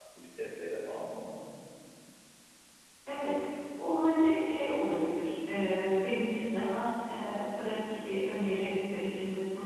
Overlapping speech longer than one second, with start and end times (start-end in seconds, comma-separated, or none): none